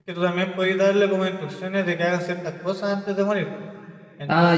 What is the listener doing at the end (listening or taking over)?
taking over